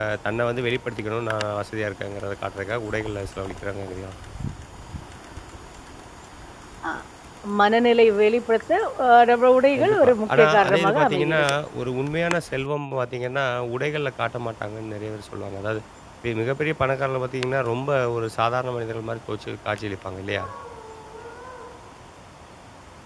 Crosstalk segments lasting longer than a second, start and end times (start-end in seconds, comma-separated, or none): 9.8-11.4